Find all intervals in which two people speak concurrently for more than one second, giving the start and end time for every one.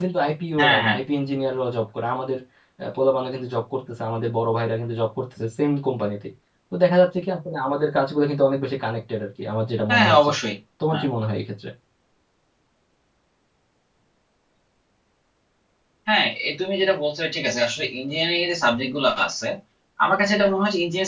none

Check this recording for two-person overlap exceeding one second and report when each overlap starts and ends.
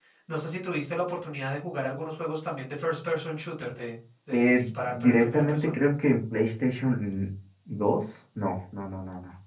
4.3-5.8

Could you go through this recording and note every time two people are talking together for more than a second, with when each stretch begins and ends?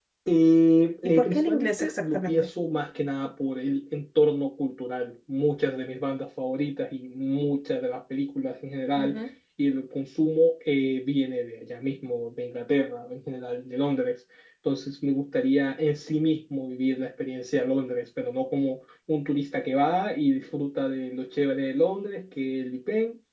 1.0-2.5

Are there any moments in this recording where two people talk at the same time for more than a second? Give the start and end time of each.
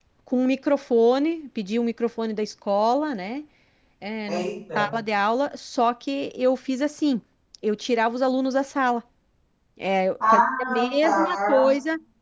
10.3-11.7

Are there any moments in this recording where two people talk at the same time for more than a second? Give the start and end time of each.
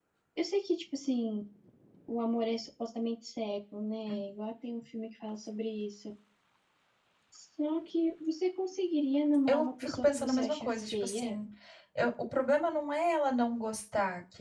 9.5-11.4

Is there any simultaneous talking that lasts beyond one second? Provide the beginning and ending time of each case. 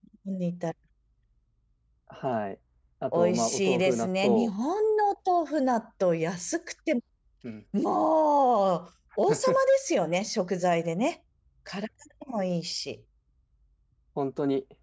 3.1-4.5

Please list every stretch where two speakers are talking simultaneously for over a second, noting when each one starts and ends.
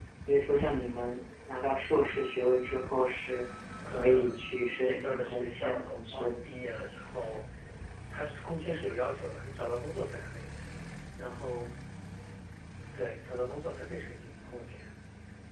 4.8-6.3

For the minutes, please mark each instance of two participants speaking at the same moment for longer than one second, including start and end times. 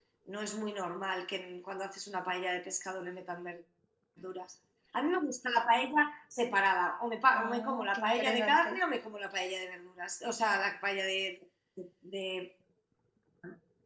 7.3-8.8

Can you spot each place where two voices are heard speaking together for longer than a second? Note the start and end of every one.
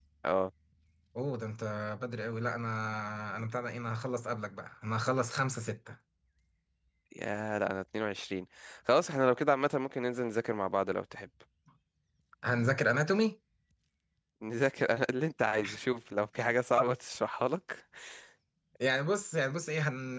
none

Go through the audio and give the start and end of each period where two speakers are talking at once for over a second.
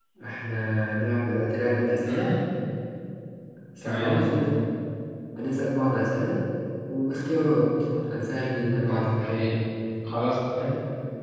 none

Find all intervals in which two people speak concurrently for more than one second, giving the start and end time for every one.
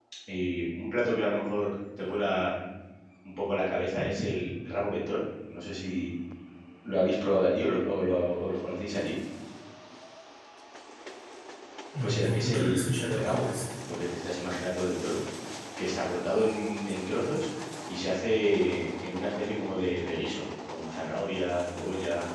12.0-13.4

